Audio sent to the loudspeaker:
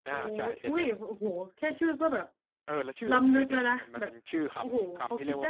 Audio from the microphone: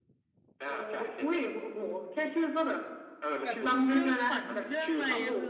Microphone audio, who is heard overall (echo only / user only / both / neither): both